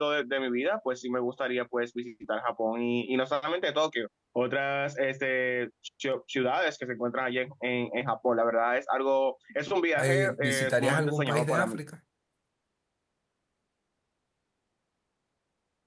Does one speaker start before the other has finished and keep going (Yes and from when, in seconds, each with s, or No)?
Yes, from 9.9 s